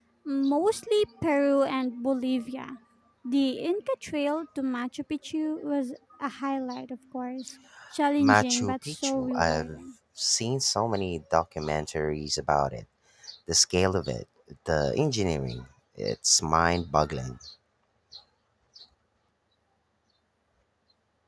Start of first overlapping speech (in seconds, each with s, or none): 8.2 s